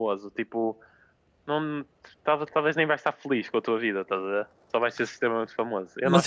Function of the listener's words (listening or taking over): taking over